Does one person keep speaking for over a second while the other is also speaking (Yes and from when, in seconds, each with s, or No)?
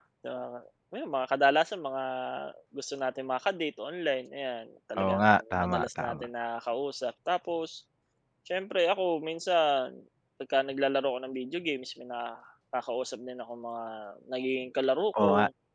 Yes, from 5.0 s